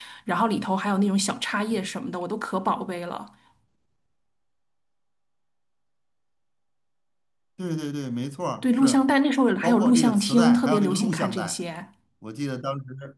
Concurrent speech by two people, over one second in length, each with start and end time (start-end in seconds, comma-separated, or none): 9.6-11.6